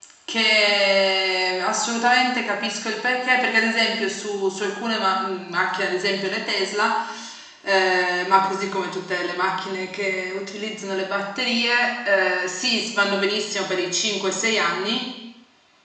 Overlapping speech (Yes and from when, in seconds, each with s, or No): No